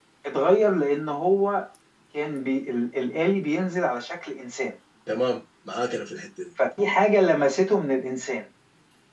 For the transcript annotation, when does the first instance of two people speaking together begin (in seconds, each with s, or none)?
none